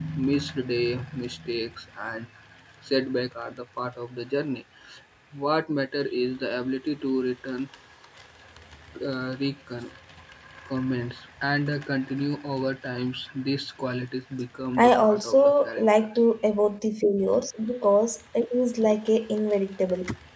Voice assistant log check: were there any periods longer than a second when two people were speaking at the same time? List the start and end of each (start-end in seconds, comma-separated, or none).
14.8-16.1